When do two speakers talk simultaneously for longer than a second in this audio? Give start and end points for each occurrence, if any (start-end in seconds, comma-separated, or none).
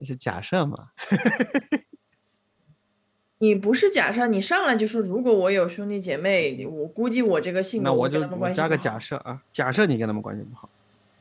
7.8-9.0